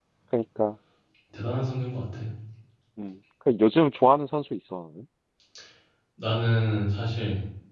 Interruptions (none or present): none